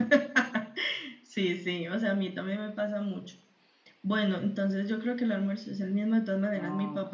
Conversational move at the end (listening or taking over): listening